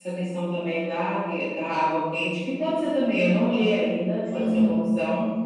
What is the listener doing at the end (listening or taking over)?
taking over